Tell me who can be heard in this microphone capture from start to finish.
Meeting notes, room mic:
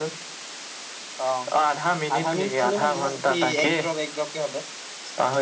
echo only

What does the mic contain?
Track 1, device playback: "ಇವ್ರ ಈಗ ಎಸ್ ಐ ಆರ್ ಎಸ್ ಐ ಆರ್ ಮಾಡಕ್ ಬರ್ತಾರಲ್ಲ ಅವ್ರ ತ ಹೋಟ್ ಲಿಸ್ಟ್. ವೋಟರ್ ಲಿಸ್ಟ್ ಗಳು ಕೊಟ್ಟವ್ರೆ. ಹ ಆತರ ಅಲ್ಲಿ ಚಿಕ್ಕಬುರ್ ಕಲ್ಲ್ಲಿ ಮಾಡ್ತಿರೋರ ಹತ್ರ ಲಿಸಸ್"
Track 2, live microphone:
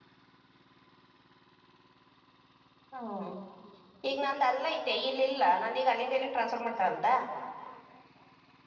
user only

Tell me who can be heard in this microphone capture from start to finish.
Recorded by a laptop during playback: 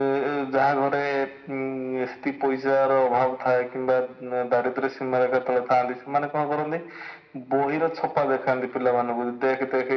echo only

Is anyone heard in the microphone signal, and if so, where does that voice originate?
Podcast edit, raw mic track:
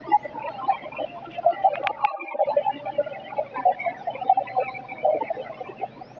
echo only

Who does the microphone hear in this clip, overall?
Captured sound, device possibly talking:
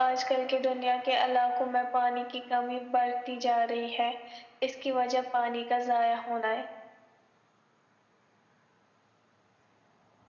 echo only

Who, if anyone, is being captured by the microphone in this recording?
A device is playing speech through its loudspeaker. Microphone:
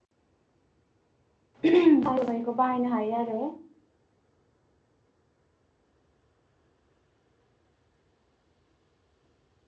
user only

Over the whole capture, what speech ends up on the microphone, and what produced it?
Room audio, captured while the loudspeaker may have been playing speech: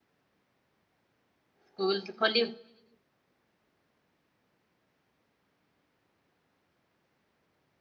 user only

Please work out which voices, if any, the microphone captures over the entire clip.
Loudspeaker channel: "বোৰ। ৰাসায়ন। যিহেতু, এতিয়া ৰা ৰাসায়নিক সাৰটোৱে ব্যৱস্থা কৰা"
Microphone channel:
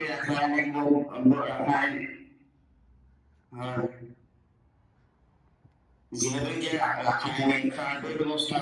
echo only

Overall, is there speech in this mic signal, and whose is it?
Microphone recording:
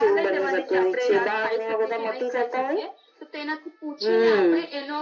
echo only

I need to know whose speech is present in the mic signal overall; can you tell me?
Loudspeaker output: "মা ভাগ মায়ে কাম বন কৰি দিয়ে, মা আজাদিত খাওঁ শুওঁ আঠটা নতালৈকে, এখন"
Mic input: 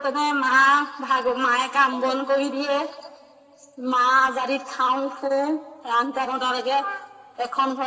both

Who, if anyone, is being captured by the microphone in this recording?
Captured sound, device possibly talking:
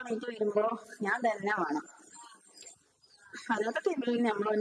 echo only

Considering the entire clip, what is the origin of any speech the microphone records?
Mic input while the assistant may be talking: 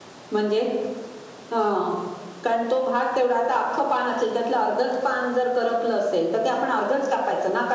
user only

